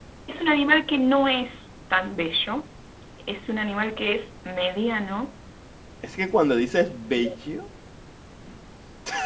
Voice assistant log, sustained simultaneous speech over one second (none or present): none